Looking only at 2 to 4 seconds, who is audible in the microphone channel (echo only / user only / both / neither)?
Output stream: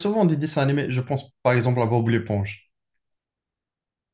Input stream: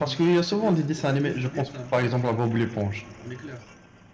both